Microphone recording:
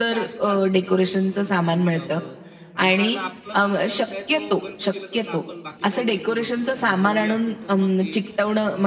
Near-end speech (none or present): present